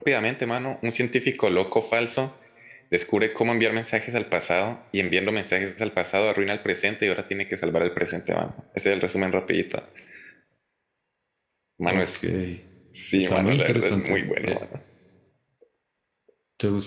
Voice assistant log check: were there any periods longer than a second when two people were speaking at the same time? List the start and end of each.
13.1-14.6

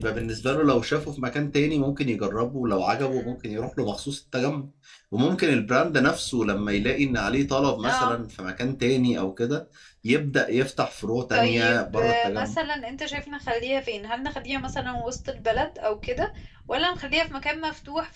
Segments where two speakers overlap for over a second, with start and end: 11.3-12.5

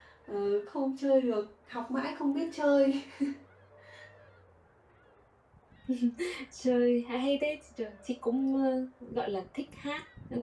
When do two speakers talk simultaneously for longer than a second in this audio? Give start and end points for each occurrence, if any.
none

